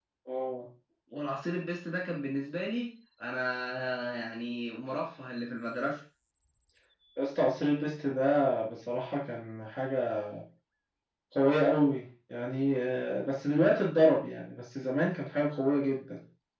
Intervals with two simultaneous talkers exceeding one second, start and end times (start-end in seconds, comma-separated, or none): none